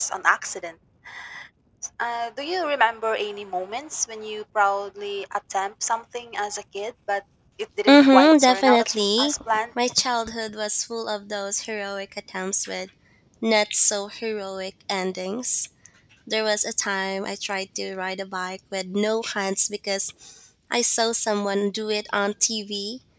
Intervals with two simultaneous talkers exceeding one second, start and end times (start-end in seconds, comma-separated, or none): 7.9-9.3